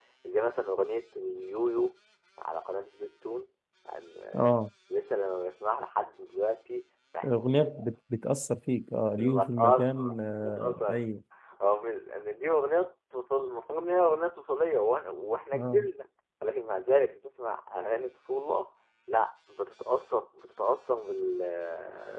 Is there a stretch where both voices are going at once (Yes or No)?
Yes